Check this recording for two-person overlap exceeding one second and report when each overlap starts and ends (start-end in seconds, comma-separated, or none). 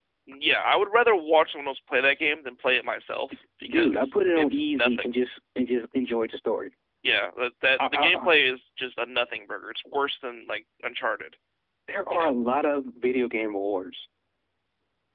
3.7-5.1